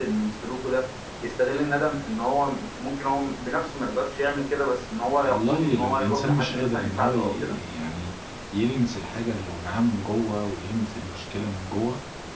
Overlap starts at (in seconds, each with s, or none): 5.2 s